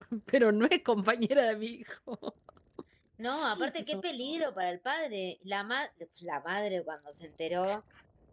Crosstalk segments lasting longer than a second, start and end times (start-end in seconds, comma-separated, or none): none